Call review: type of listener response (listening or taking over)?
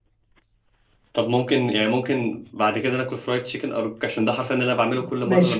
taking over